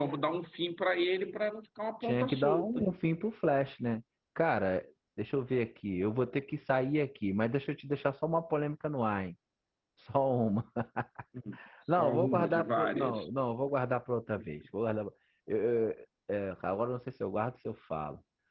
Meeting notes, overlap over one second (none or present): present